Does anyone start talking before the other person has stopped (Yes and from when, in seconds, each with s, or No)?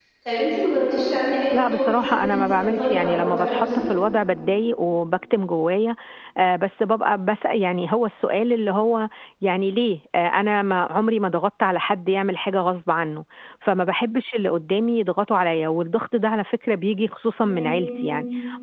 Yes, from 1.5 s